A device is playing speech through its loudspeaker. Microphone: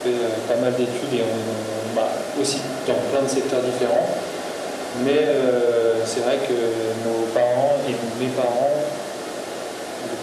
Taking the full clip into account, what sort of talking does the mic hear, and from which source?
echo only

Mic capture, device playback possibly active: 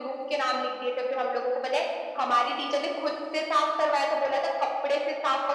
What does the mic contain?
echo only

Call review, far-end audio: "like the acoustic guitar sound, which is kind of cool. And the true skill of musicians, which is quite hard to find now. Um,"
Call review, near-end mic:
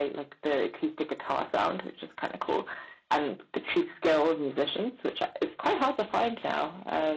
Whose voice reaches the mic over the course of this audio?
echo only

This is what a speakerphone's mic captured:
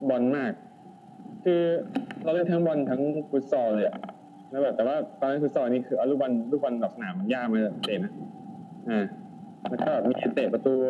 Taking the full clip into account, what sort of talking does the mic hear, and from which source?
echo only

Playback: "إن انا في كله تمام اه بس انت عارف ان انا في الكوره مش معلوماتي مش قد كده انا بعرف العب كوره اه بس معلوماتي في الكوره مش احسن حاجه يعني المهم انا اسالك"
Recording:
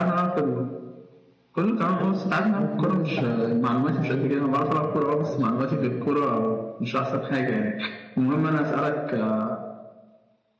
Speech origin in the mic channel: both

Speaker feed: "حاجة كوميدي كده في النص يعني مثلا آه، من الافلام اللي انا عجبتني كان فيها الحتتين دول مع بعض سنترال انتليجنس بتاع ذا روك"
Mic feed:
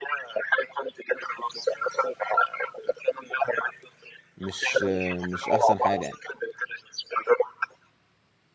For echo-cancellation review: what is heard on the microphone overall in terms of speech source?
both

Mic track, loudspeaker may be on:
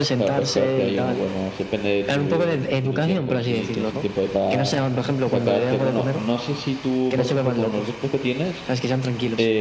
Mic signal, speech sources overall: both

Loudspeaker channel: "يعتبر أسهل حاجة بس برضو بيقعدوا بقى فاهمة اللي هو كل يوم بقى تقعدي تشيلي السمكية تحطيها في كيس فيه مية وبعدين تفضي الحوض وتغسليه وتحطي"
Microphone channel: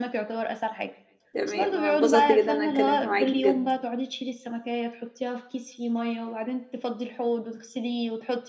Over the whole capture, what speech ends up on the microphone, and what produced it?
both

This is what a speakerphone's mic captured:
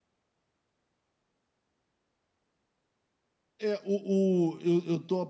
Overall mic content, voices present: user only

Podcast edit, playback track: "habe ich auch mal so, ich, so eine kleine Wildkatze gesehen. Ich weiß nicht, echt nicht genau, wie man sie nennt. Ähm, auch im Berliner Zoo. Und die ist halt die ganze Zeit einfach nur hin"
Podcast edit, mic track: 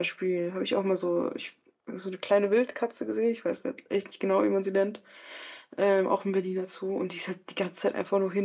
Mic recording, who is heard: echo only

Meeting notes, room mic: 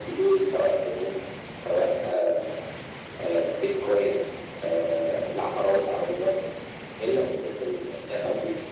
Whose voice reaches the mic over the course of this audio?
echo only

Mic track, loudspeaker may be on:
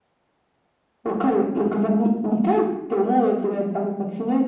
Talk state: echo only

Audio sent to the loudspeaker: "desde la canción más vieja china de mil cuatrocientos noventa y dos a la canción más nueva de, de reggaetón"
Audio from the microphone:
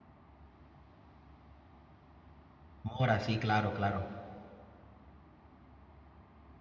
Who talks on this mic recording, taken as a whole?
user only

